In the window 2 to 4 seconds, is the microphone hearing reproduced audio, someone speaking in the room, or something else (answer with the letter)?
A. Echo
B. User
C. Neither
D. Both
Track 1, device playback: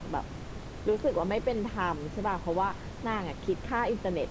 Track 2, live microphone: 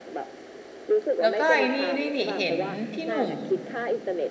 D